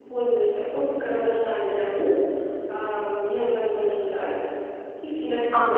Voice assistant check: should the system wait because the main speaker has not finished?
No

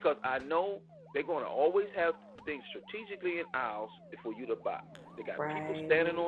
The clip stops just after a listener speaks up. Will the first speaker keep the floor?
Yes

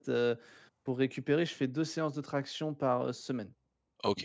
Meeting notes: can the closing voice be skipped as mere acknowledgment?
No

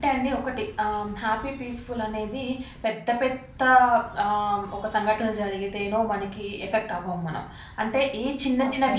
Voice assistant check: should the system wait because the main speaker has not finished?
Yes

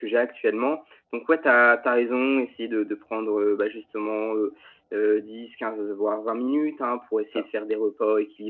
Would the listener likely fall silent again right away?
Yes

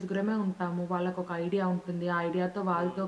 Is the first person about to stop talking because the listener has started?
No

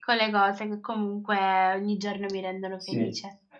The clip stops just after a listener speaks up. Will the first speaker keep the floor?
No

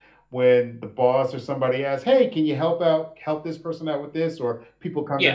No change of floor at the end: Yes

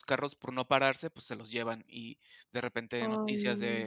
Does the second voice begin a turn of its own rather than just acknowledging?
No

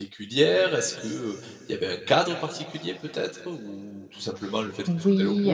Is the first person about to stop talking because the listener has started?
Yes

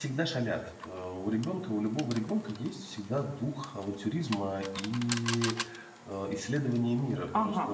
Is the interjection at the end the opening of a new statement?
Yes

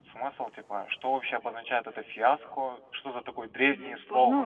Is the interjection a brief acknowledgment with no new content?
Yes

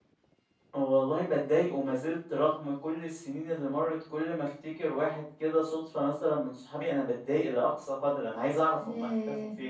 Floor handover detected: No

